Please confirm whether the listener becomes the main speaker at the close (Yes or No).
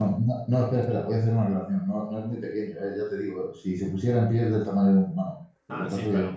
Yes